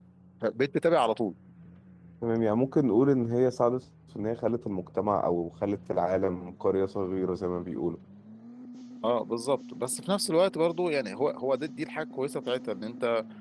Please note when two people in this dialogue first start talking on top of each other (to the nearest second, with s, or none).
none